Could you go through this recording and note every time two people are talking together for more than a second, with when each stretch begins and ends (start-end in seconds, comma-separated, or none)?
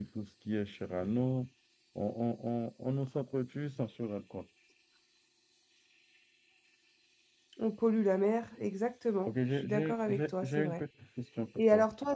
9.3-10.8